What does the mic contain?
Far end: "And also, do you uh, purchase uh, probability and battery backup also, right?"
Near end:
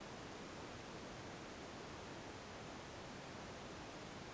neither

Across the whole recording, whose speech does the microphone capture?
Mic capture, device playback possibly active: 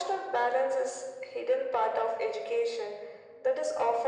echo only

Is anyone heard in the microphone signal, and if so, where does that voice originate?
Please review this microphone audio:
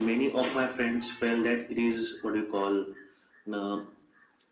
echo only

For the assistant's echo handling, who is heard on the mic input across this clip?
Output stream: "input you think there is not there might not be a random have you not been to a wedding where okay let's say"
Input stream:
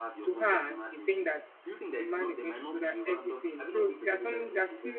both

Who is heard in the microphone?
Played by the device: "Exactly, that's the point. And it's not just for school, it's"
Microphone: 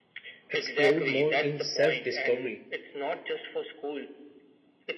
both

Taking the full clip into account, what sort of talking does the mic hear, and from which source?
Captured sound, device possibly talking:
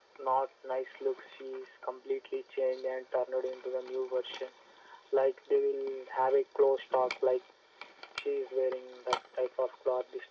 echo only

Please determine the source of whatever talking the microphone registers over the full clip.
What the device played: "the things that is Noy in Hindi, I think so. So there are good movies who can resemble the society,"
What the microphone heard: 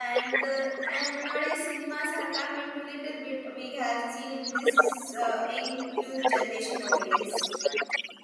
both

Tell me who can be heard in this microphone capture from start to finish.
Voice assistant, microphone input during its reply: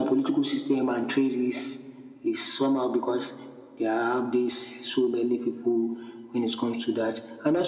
echo only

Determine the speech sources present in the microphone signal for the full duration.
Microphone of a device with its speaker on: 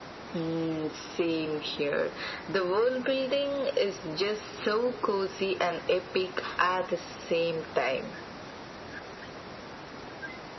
echo only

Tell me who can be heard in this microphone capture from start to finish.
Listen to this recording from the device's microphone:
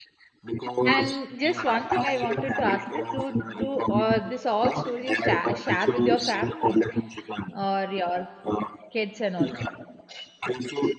both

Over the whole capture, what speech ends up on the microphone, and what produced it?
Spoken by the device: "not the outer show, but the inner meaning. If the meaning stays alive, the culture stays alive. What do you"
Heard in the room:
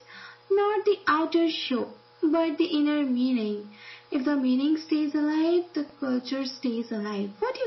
echo only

